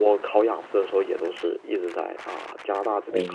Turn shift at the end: Yes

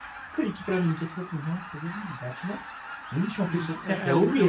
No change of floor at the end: No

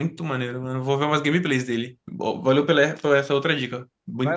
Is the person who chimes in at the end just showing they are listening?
No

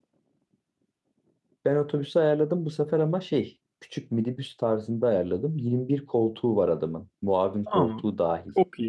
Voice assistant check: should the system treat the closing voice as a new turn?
Yes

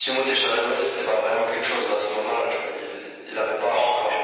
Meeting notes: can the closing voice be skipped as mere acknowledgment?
No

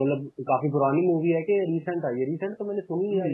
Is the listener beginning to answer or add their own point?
Yes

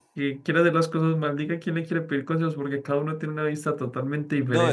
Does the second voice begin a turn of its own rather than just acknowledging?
Yes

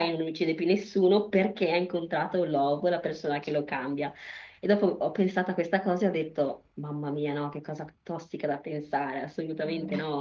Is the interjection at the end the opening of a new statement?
No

